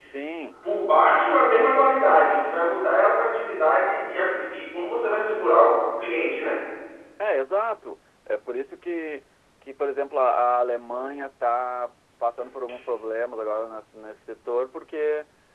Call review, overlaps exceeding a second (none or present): none